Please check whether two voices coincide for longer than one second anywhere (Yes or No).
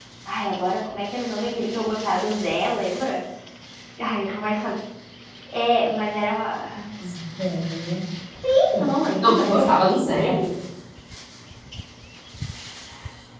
Yes